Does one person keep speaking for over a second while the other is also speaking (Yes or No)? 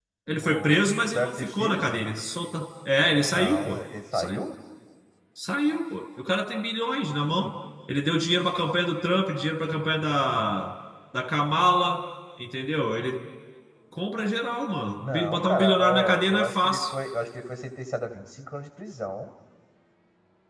Yes